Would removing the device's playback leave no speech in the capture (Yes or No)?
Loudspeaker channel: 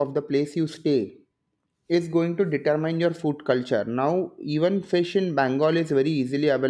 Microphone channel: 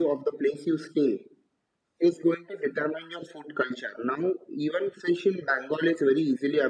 Yes